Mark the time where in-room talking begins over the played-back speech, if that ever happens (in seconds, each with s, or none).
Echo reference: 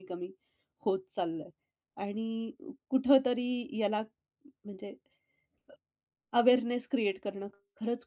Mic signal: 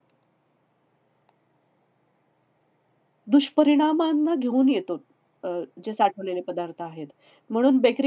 3.3 s